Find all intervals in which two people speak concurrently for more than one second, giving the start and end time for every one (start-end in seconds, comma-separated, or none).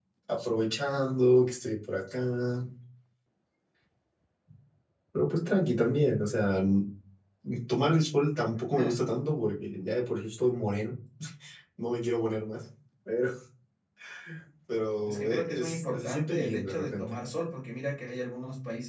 15.1-17.2